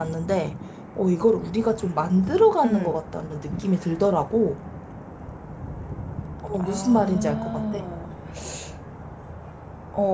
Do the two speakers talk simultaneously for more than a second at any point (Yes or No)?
Yes